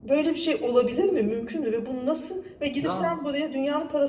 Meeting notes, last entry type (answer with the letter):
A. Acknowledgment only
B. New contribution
A